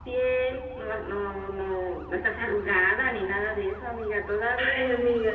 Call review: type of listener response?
taking over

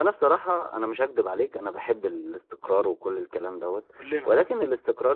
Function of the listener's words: listening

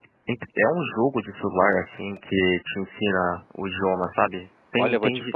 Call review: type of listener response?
taking over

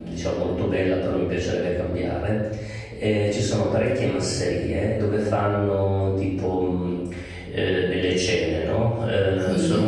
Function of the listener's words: listening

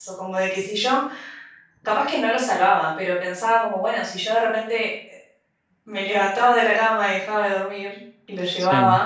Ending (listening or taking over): listening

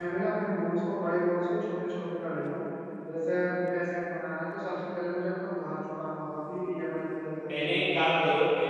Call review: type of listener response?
taking over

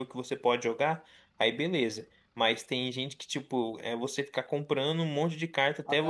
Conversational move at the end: listening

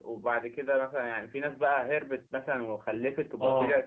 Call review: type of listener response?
taking over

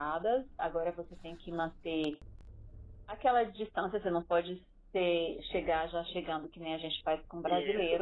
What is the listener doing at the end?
taking over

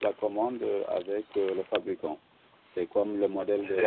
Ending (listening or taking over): listening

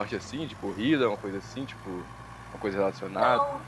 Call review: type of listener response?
taking over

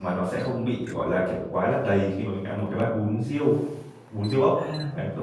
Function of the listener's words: taking over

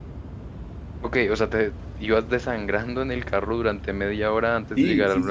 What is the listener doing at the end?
taking over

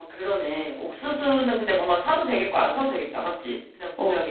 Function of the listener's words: taking over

